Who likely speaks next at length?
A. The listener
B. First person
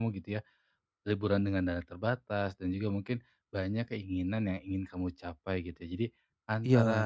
B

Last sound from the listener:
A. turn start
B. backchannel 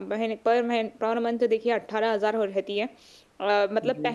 B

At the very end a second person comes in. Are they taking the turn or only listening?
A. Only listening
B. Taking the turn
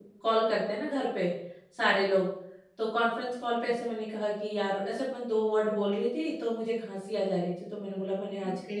A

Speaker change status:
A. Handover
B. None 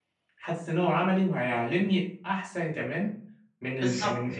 B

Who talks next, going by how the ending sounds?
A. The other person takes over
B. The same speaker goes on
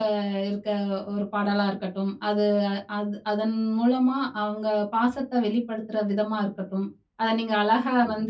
B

